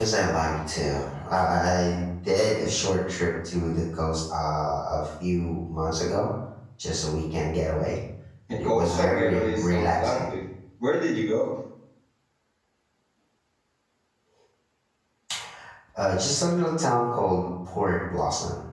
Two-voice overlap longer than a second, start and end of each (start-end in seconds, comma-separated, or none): 8.6-10.3